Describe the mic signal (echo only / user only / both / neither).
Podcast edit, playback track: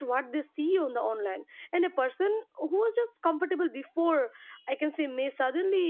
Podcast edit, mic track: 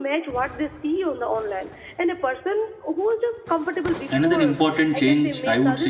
both